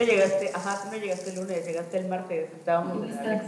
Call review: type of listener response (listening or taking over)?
taking over